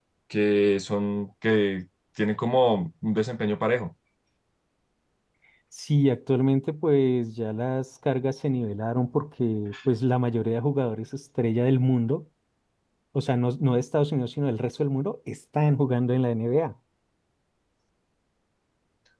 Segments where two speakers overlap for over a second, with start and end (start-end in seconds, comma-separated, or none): none